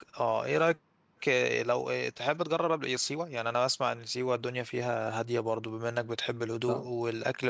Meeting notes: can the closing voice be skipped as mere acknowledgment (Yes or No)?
Yes